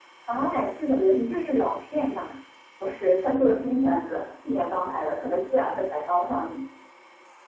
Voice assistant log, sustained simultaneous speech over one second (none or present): none